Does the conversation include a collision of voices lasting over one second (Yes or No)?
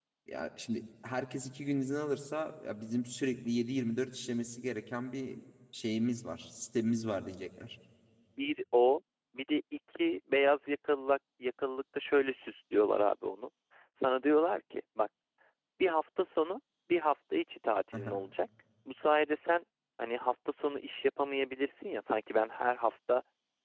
No